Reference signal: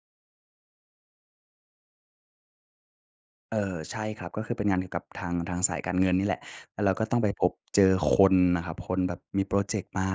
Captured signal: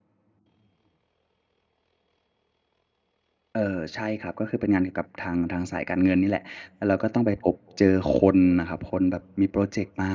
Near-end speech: none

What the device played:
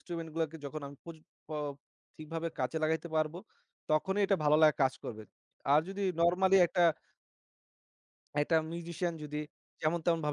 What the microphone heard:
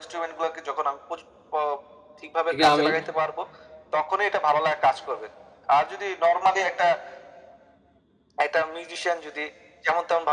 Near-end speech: present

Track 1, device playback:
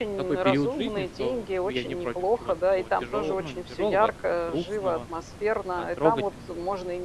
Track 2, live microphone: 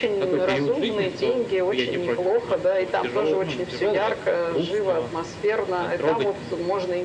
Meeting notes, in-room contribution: none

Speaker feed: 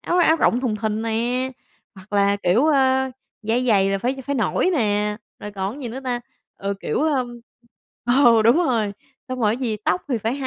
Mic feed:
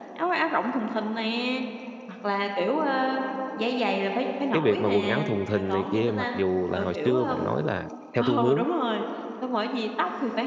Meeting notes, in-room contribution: present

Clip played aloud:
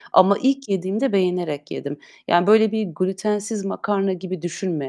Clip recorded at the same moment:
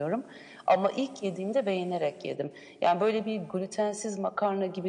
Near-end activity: none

